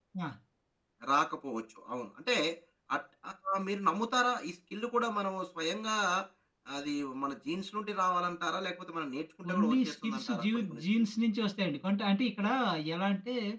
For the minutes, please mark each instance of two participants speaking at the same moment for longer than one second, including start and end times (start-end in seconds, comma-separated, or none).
9.4-11.1